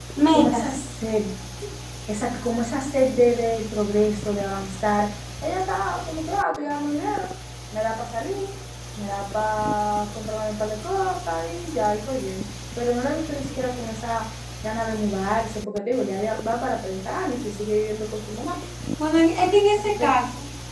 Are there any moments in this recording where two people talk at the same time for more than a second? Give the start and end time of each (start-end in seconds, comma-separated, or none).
none